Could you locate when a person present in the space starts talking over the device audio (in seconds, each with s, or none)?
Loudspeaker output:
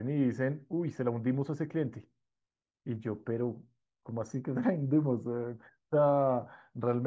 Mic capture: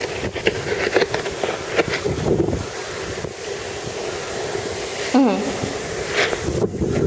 5.1 s